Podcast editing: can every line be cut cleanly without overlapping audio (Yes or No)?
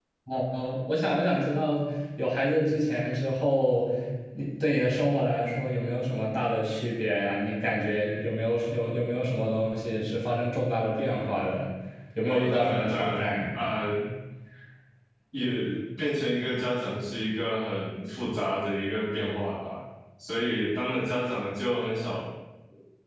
No